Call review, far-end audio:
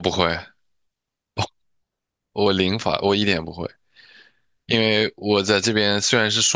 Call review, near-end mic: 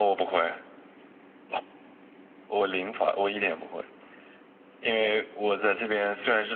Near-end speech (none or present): none